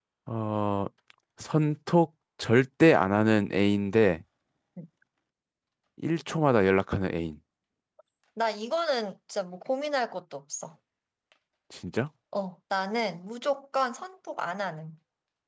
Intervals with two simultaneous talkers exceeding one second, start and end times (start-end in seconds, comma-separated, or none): none